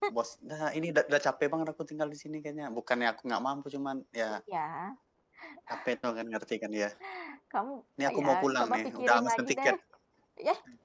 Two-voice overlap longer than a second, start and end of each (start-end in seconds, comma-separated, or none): 8.2-9.7